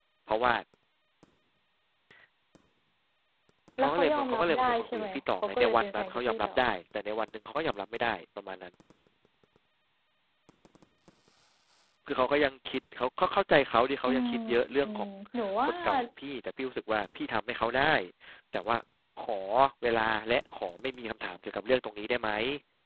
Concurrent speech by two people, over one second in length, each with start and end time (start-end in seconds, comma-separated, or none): 3.8-6.5